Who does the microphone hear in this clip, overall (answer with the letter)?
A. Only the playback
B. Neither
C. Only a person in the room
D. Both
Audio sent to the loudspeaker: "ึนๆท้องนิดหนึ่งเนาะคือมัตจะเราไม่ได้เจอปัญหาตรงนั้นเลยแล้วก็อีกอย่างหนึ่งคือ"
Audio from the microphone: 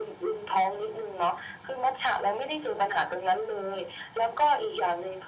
A